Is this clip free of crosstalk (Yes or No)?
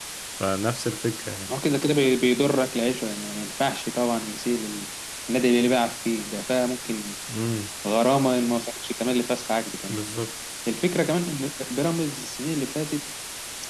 Yes